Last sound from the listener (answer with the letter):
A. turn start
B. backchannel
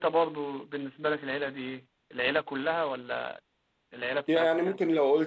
A